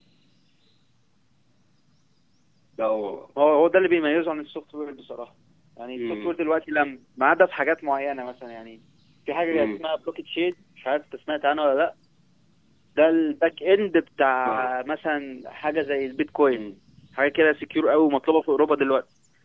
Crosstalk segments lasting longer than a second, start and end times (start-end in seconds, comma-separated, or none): none